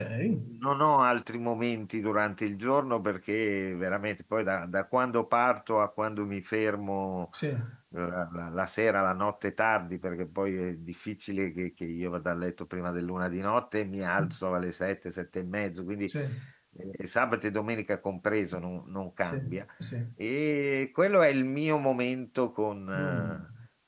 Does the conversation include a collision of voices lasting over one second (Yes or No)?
No